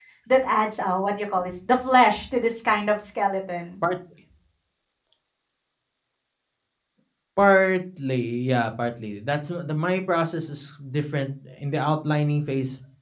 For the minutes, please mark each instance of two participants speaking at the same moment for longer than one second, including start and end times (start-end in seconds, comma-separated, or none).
none